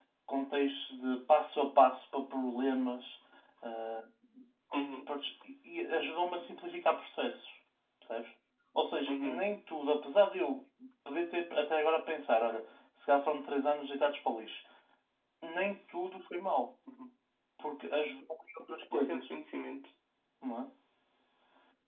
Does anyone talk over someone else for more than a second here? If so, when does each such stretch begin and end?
none

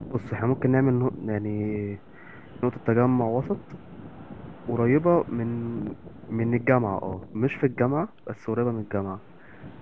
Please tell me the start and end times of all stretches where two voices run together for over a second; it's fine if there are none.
none

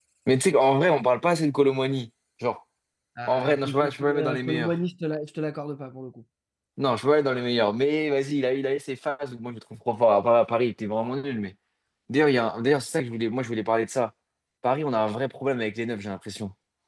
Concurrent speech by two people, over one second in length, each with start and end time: 3.2-4.7

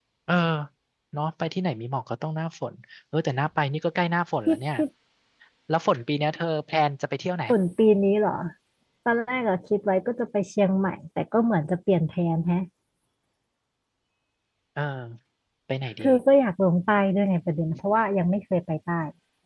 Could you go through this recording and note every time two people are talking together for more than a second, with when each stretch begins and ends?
none

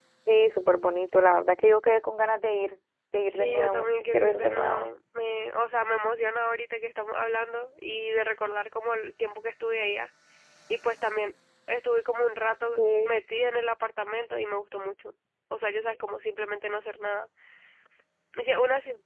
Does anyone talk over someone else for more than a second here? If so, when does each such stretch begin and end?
3.3-4.8

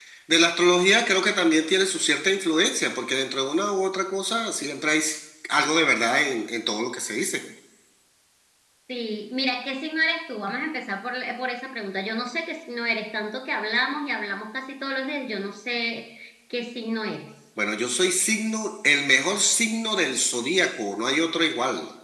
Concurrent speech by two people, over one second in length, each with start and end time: none

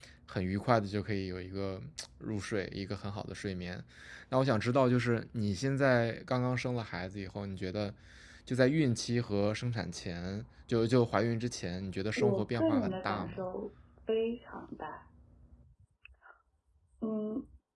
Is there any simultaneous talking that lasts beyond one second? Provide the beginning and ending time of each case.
12.2-13.4

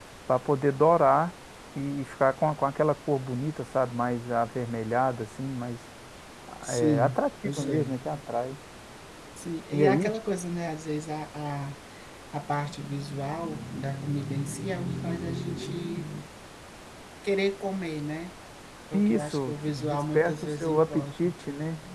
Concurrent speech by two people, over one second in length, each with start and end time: 6.7-8.0, 18.9-21.3

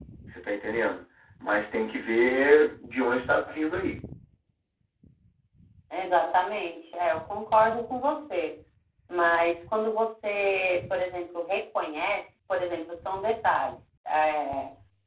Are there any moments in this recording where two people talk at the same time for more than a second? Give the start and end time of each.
none

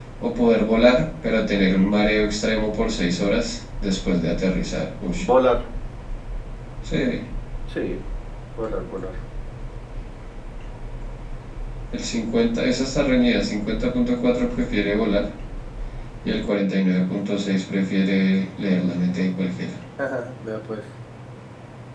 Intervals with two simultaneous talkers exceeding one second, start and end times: none

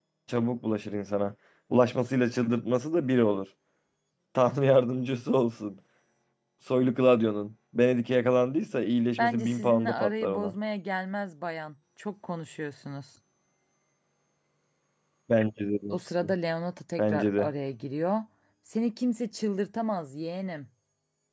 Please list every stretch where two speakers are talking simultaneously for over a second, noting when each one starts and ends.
9.2-10.5

